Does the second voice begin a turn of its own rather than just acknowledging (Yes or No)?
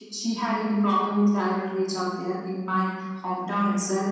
No